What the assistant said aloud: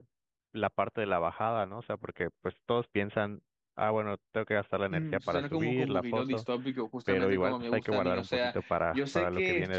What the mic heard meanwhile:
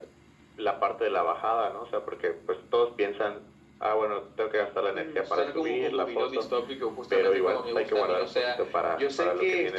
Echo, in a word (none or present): present